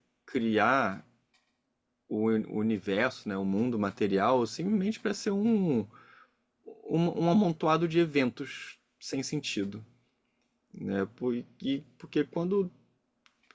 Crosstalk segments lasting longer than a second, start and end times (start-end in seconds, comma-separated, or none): none